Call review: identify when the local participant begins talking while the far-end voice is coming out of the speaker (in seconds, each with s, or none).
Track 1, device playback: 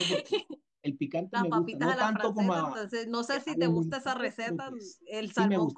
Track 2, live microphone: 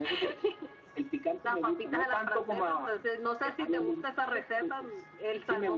none